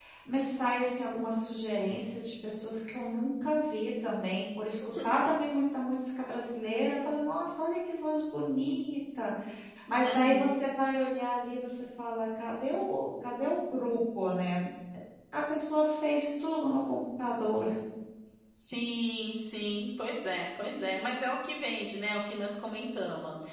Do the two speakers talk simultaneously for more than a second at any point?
No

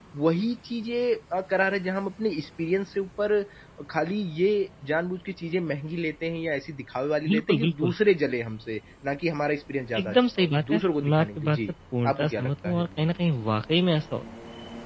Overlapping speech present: Yes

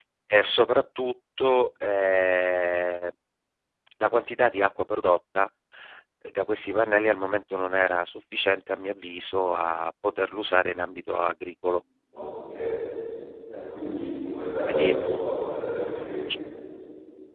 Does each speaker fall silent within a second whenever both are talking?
Yes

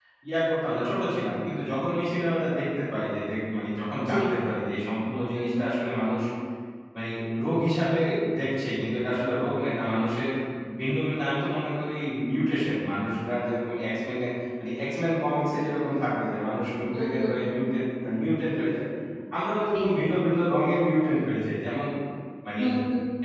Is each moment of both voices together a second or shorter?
Yes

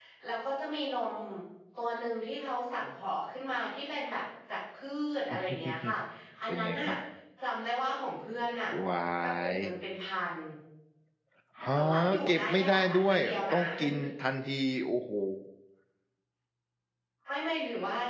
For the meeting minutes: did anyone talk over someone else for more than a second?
Yes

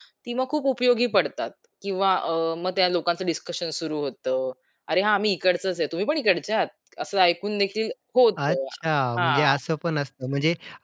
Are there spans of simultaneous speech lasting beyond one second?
No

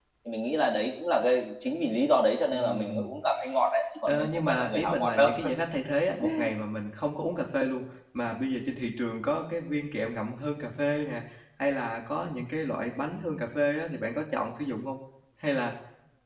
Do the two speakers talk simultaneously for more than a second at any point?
Yes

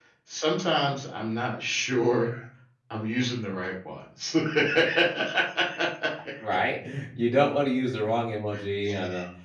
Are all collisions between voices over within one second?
Yes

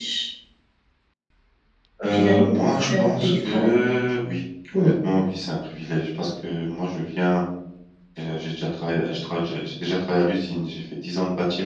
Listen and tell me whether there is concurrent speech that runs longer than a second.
Yes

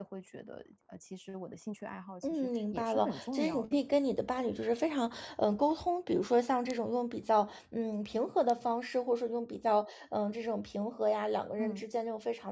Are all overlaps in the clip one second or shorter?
No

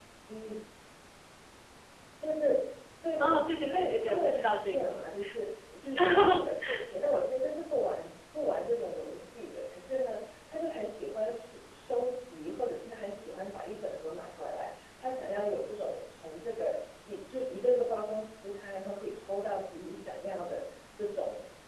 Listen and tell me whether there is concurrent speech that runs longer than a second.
Yes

